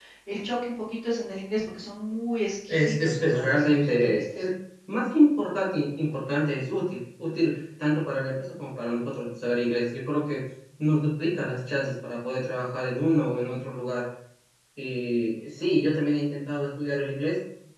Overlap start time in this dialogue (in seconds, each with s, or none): 2.7 s